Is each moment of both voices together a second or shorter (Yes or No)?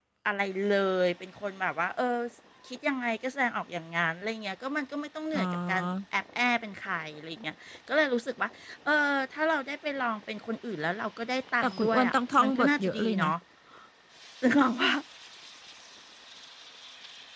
No